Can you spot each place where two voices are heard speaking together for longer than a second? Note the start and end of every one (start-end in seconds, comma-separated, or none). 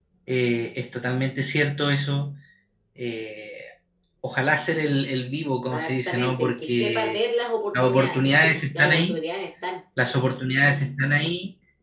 5.7-7.2, 7.7-9.2